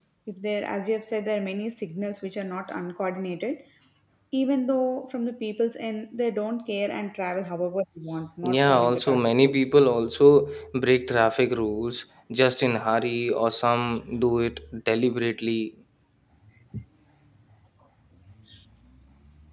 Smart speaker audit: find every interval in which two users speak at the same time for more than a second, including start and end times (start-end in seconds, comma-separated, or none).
8.4-9.7